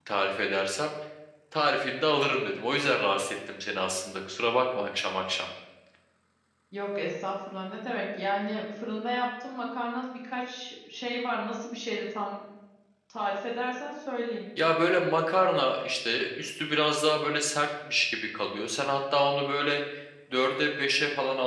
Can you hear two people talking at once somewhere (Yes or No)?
No